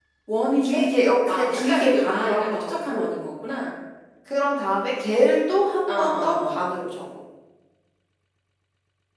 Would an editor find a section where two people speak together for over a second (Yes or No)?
Yes